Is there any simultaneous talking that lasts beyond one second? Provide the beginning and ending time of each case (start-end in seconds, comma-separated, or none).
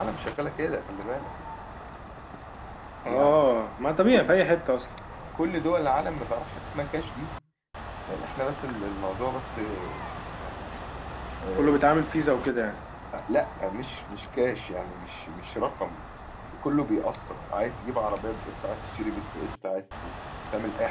none